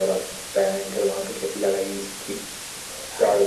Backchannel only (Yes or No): Yes